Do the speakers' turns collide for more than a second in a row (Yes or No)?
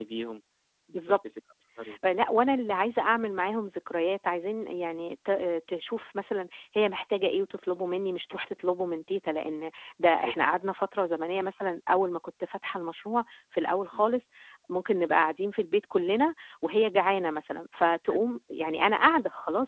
No